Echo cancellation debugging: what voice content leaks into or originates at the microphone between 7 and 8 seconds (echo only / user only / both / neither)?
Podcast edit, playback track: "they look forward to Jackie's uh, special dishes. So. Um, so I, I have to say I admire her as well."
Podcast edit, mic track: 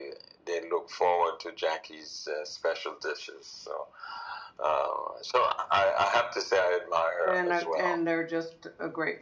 both